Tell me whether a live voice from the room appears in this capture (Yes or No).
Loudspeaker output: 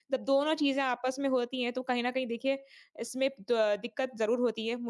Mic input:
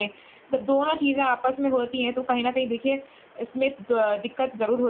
No